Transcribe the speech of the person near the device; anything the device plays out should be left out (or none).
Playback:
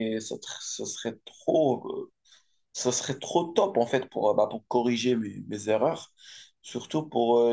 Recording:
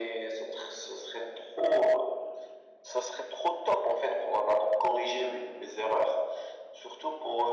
none